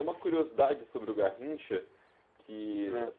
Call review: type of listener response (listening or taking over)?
listening